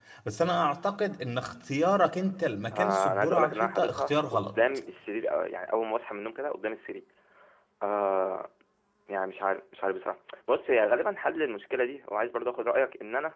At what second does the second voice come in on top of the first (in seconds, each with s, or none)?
2.7 s